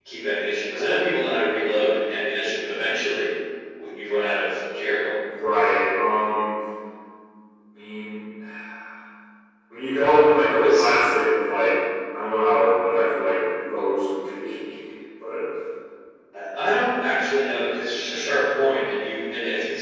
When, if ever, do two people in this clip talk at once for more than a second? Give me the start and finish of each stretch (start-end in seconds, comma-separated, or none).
none